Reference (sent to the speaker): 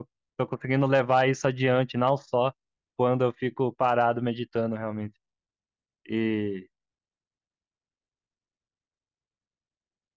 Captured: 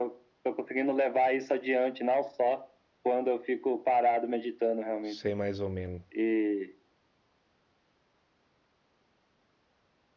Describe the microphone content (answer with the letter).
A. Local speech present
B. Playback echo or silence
A